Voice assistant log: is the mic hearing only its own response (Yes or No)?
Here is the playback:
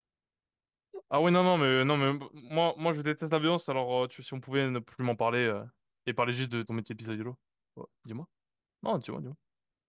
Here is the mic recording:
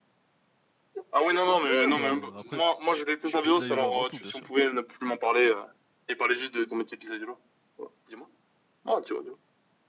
No